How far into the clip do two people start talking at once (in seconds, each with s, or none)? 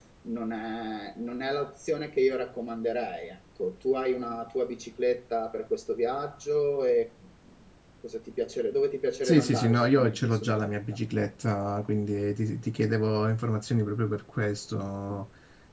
9.2 s